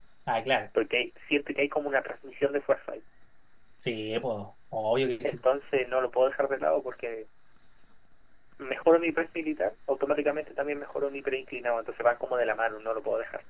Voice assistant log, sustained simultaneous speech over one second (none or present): none